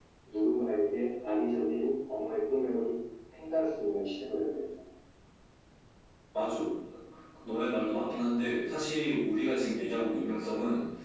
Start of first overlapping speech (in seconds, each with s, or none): none